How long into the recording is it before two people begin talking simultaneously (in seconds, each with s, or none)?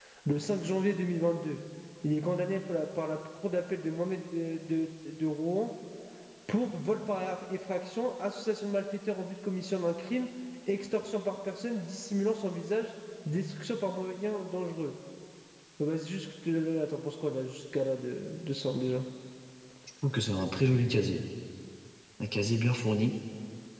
none